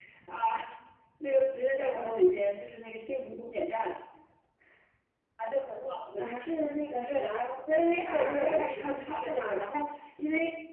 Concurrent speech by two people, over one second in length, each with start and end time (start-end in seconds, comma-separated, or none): 8.1-9.7